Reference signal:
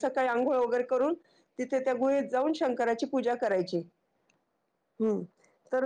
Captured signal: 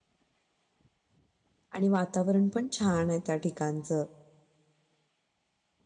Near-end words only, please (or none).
आणि वातावरण पण छान आहे. त्या ठिकाणच